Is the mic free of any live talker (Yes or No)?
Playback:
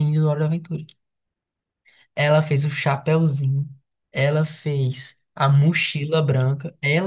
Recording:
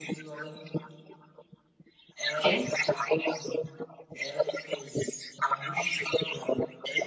No